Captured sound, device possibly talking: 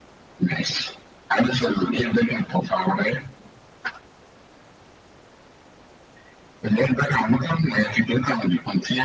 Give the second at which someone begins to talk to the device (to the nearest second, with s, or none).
none